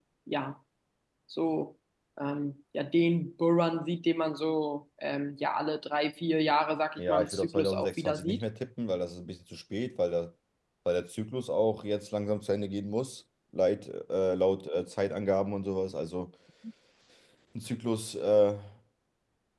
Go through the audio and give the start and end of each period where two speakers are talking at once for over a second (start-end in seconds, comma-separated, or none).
7.0-8.4